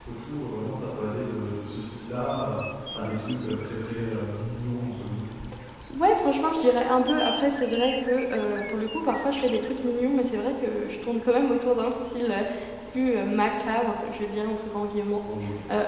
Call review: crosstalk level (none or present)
none